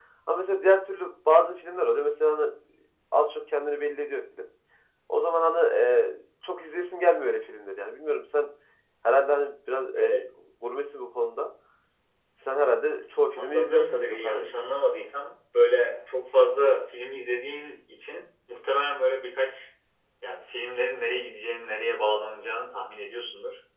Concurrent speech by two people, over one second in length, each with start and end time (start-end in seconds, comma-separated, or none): 13.4-14.6